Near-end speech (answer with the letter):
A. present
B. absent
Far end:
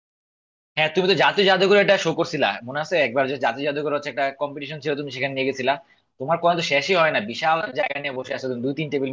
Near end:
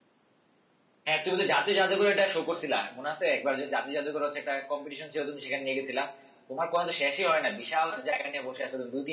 B